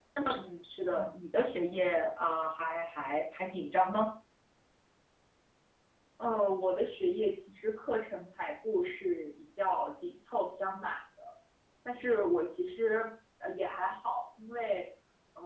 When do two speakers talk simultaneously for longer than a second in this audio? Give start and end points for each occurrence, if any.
none

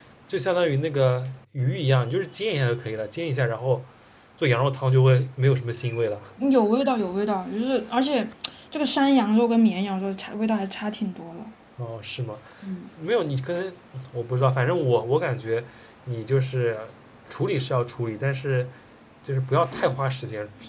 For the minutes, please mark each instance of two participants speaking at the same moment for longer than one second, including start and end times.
none

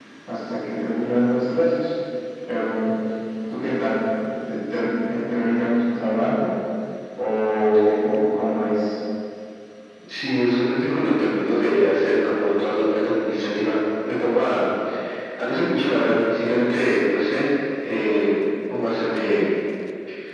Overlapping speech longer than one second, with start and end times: none

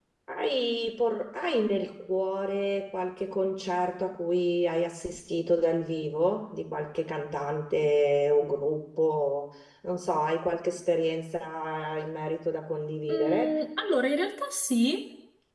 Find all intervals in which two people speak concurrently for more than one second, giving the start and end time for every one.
none

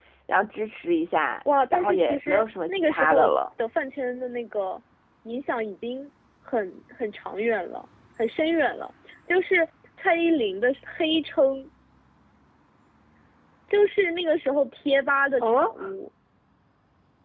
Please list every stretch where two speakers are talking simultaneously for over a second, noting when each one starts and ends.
1.7-3.3

